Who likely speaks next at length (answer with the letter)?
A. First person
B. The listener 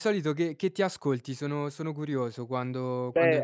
B